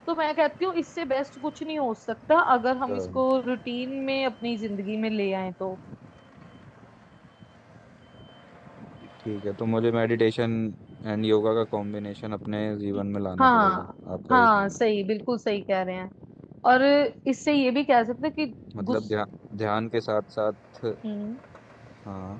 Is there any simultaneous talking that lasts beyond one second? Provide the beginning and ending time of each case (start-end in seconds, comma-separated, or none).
none